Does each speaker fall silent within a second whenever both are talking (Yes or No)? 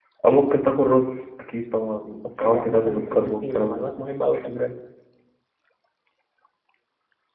No